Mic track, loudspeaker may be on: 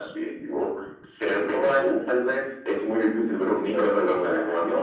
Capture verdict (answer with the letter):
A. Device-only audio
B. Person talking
A